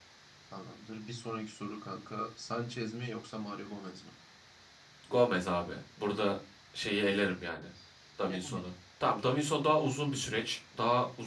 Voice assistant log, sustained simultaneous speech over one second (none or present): none